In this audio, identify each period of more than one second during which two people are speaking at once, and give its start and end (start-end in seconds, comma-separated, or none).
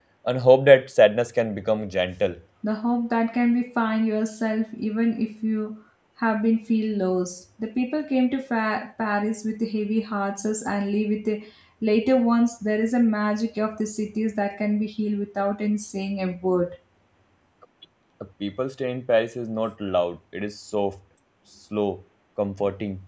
none